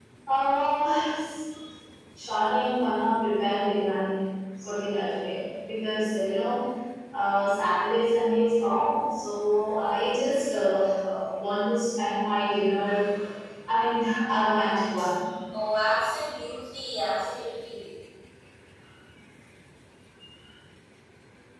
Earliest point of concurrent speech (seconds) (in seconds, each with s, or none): none